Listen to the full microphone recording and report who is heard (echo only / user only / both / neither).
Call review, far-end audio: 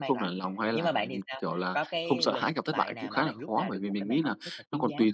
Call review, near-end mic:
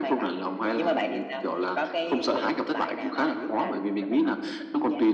echo only